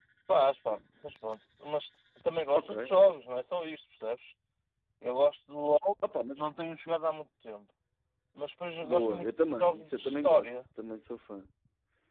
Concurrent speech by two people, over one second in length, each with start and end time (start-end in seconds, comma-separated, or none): 8.8-10.5